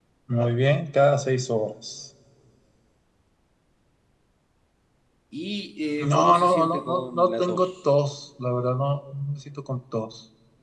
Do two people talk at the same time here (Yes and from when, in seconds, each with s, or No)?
Yes, from 6.0 s